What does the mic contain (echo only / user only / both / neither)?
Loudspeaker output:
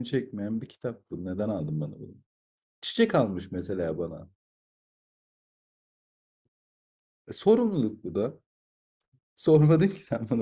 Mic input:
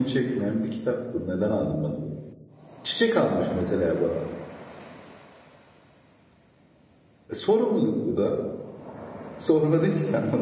echo only